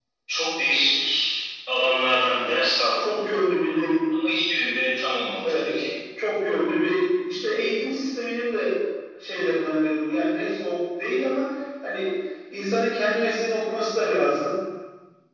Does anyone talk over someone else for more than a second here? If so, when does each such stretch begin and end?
none

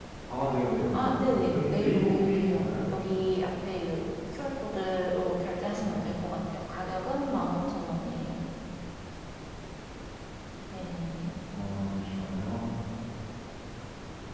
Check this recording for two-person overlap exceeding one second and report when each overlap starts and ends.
0.9-2.7

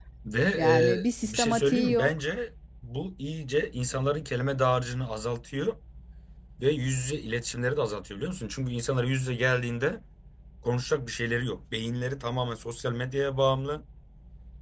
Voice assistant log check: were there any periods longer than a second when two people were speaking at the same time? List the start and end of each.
0.5-2.1

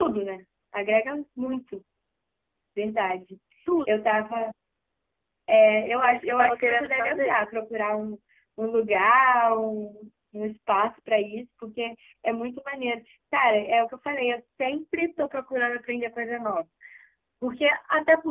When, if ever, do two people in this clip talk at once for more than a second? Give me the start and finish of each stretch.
6.0-7.3

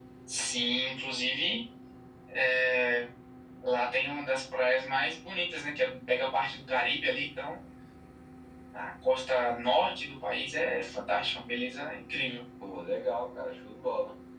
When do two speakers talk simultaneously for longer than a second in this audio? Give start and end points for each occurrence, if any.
none

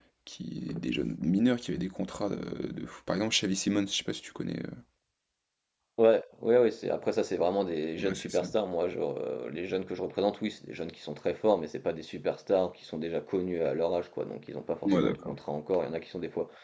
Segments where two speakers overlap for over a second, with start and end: none

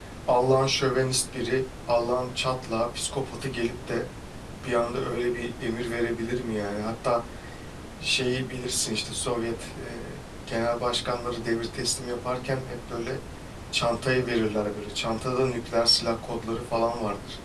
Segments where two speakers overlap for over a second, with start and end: none

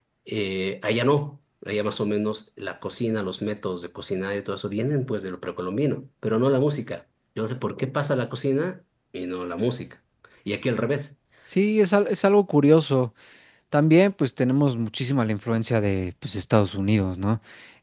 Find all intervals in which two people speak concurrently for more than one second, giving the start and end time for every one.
none

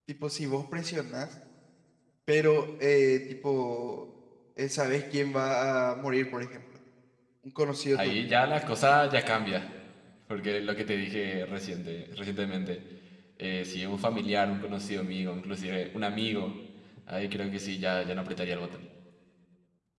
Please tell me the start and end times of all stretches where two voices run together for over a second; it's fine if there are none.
none

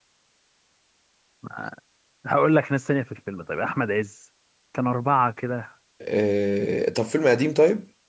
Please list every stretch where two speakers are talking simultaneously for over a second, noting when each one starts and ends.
none

